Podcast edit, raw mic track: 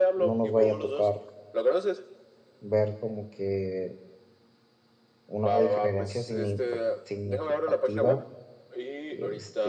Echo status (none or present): present